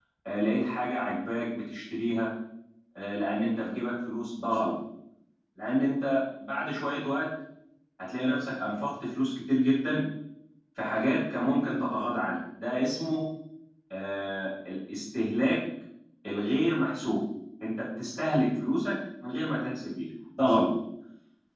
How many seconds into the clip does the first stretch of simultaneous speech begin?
none

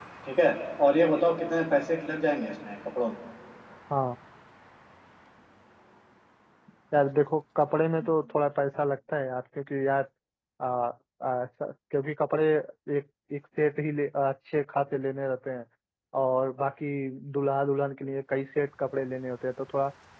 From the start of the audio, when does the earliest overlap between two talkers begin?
none

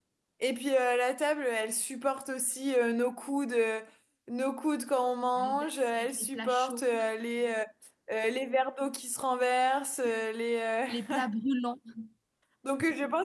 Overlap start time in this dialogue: 5.4 s

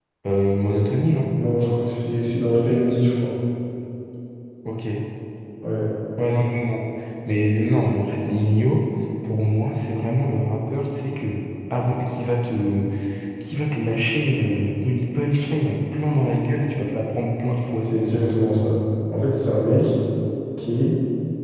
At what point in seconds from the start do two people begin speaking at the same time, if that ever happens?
none

